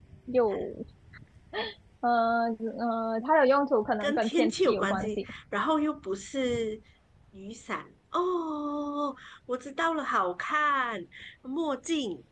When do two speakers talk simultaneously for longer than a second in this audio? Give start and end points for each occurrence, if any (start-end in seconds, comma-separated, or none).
4.0-5.3